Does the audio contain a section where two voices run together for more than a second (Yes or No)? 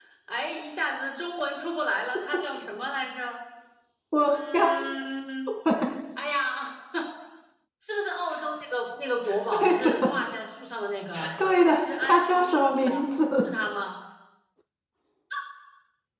Yes